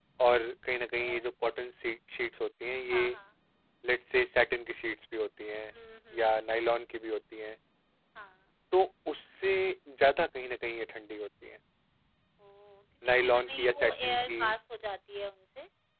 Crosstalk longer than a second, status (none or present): present